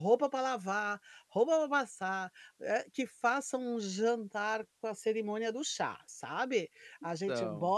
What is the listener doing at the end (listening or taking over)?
listening